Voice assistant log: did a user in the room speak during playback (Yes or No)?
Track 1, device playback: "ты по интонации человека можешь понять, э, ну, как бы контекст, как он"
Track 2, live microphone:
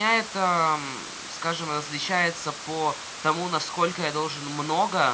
Yes